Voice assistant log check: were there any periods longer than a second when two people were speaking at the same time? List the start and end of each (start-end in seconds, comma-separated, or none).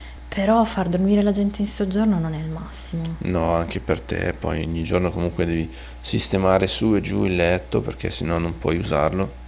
none